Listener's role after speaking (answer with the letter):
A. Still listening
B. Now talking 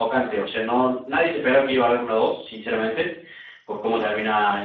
A